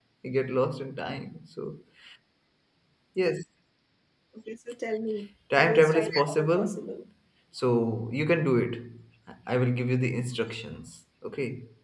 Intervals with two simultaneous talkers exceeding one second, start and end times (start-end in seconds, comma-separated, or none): 5.6-6.8